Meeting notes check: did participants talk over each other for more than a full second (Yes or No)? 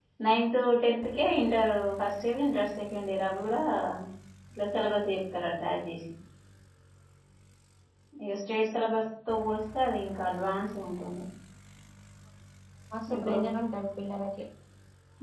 No